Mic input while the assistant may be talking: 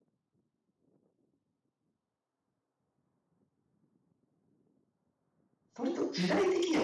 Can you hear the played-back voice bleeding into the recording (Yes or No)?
No